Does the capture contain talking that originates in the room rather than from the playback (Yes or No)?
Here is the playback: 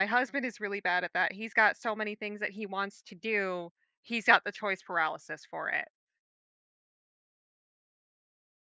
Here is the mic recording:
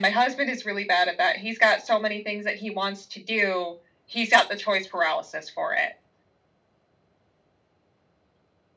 No